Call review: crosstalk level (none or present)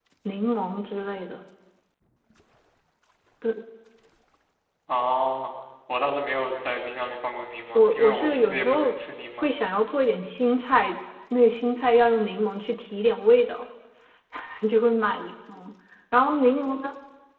present